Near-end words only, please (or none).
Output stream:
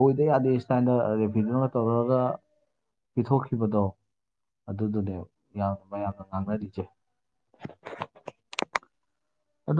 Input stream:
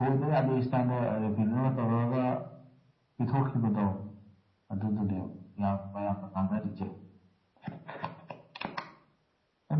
none